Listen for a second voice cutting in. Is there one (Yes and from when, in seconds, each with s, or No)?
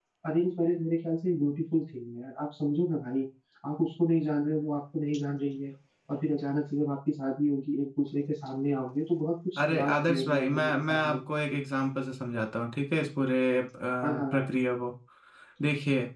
Yes, from 9.7 s